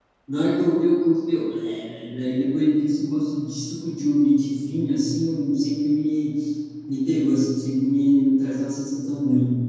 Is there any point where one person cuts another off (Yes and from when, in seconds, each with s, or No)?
No